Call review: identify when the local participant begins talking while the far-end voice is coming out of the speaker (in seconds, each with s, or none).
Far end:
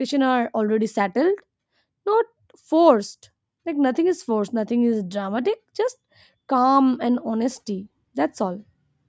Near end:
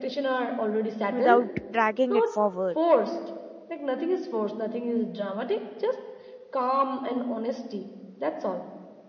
1.1 s